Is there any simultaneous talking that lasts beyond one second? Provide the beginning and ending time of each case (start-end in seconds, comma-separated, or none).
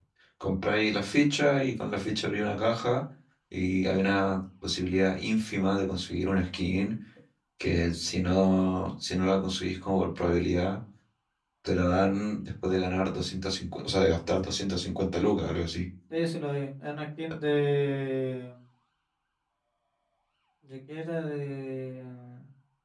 none